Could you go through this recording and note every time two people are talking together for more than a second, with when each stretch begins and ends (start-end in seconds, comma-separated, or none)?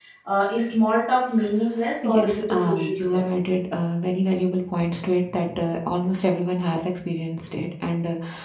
2.0-3.2